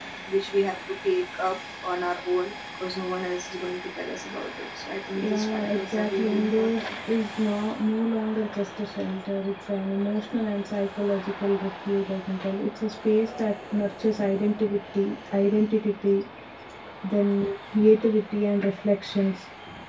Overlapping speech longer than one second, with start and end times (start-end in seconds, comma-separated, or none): 5.2-6.8